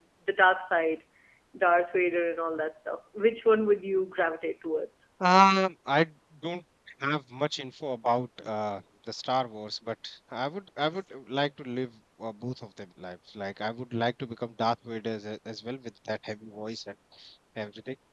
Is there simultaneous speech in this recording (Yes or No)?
No